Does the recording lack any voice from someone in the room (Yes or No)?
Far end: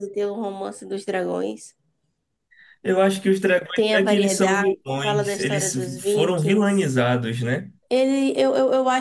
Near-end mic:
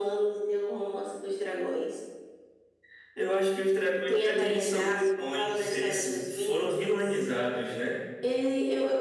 No